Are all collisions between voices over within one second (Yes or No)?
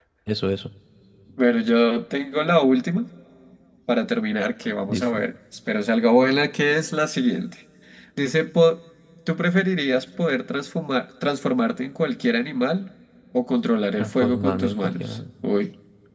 No